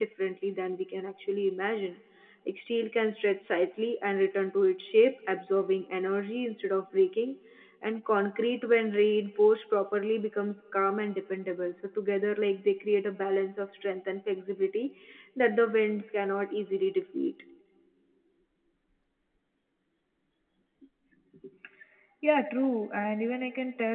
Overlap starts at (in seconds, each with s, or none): none